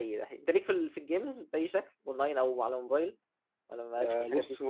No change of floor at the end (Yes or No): No